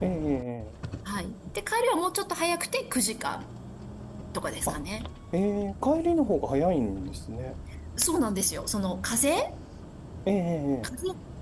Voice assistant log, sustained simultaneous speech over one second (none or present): none